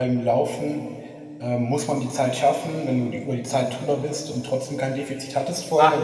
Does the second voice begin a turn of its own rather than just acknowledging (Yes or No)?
Yes